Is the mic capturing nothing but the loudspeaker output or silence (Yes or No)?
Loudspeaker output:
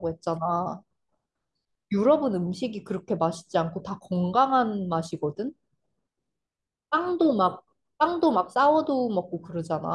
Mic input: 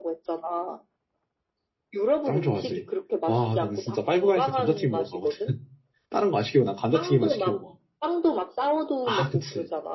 No